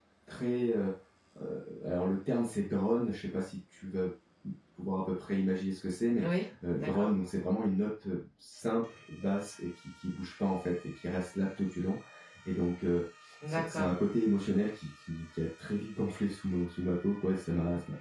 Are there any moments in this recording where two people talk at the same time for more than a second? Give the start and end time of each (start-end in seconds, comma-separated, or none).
none